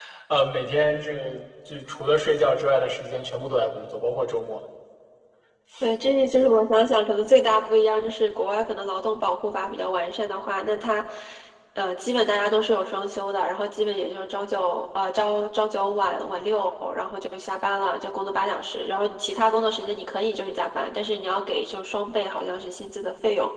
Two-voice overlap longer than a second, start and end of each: none

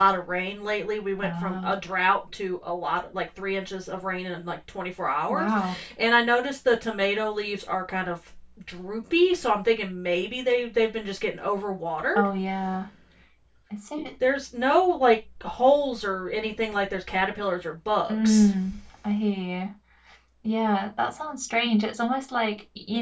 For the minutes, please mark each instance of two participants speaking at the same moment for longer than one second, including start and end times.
none

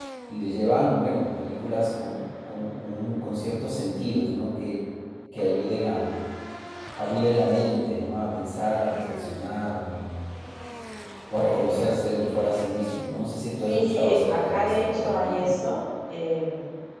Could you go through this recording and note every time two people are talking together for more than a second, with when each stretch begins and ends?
13.6-15.6

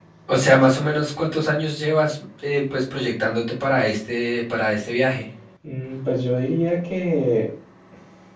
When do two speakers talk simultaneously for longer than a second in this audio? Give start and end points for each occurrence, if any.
none

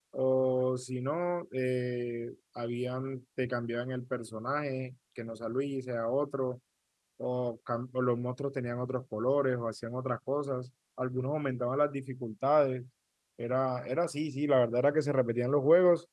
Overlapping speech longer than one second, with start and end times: none

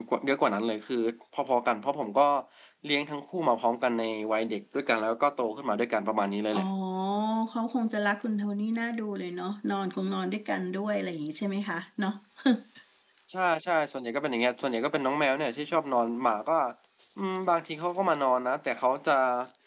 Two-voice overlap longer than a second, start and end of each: none

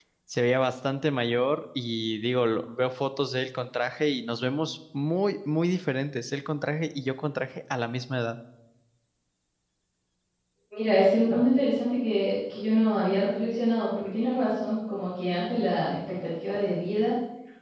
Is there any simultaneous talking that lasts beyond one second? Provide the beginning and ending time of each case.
none

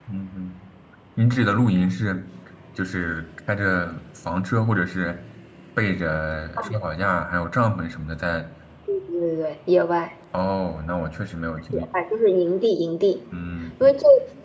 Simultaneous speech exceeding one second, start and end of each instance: none

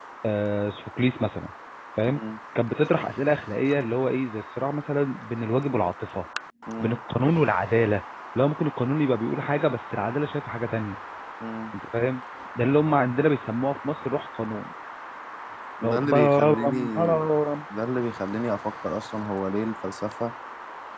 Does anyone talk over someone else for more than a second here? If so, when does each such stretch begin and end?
15.8-17.2

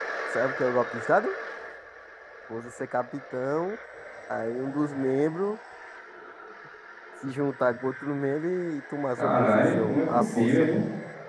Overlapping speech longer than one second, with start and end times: 9.1-10.7

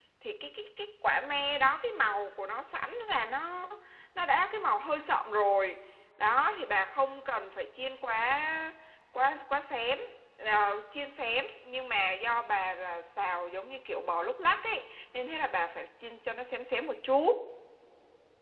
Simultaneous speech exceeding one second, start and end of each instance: none

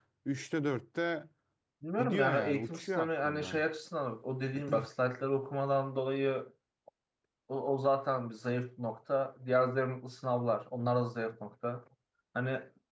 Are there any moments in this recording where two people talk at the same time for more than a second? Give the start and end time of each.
2.0-3.6

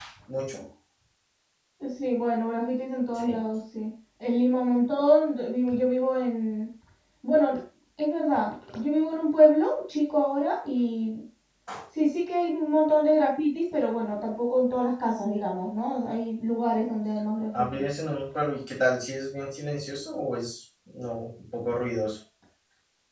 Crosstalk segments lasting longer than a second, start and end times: none

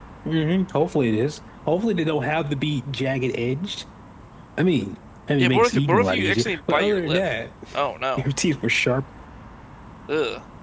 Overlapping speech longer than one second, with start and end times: 5.4-7.2

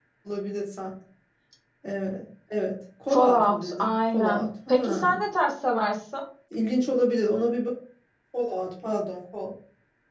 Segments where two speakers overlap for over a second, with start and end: 3.1-5.2

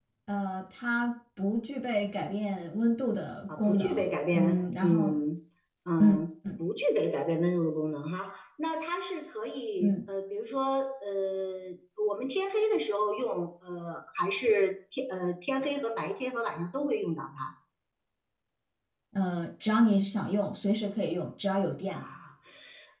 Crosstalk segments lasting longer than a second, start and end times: 3.6-5.2

